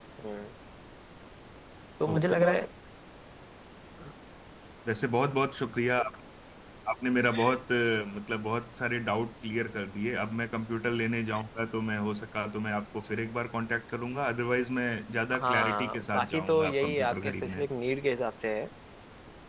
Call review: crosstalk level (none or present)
present